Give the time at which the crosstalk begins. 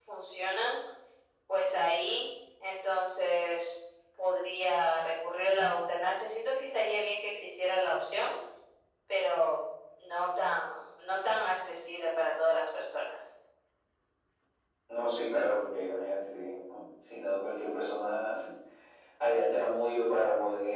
none

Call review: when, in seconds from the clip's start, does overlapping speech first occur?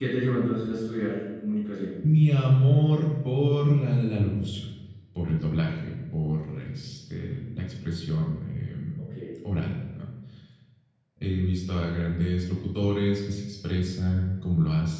none

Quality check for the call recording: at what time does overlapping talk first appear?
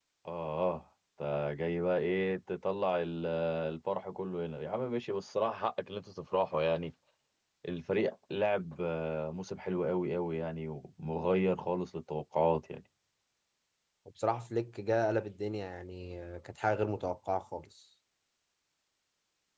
none

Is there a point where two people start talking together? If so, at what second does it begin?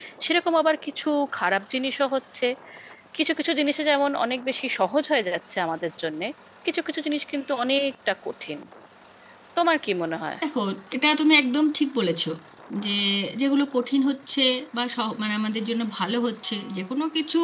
none

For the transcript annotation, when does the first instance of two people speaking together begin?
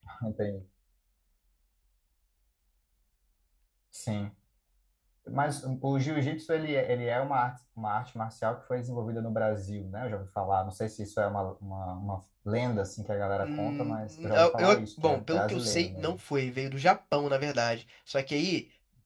13 s

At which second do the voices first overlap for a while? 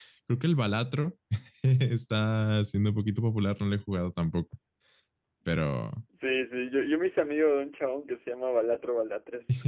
none

